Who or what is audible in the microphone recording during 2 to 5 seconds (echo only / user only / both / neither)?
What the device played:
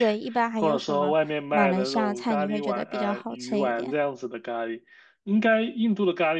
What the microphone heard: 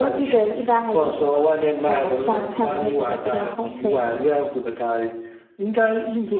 echo only